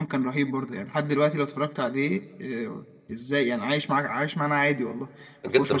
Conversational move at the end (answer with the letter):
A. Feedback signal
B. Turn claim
B